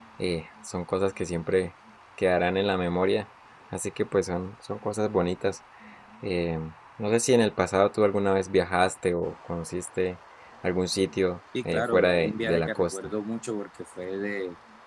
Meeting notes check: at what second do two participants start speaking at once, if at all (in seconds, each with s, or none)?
11.5 s